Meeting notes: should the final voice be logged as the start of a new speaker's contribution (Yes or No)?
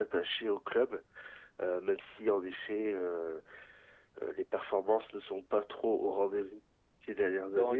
Yes